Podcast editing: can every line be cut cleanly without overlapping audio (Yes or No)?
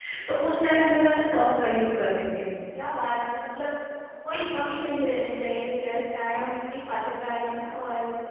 Yes